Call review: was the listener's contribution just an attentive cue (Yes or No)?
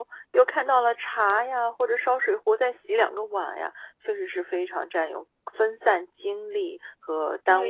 No